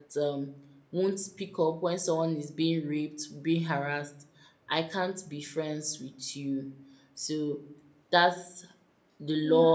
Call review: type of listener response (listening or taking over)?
taking over